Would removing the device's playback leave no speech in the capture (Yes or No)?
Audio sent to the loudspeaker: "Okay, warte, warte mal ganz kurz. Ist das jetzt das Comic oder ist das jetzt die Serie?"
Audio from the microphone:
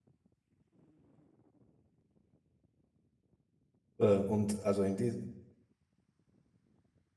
No